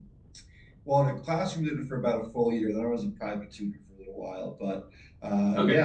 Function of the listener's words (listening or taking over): listening